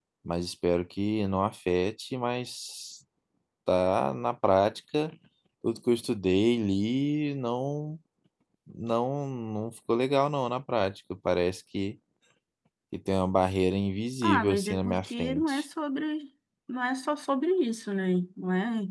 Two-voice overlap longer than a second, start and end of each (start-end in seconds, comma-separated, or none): 14.2-15.6